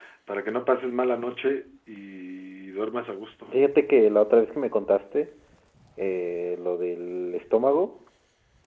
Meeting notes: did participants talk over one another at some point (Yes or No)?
No